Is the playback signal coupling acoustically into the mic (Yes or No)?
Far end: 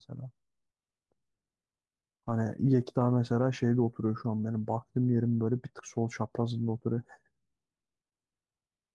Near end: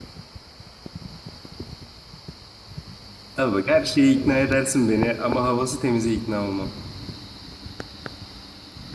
No